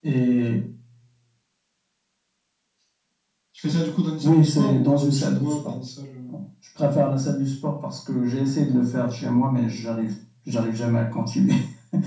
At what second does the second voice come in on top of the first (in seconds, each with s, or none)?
4.2 s